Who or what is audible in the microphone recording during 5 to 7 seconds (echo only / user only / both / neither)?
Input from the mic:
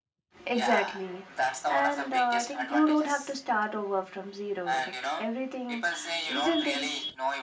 both